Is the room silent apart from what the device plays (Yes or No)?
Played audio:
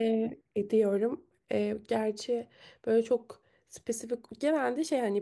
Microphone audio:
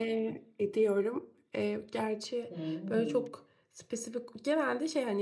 No